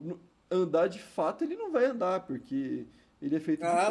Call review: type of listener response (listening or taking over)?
taking over